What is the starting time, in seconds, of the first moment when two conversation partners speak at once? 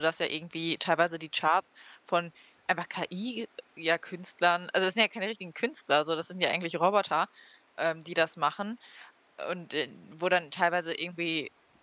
none

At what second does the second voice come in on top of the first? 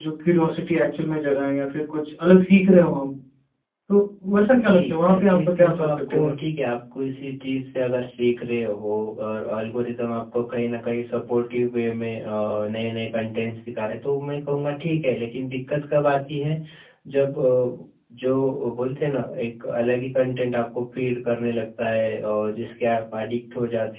4.7 s

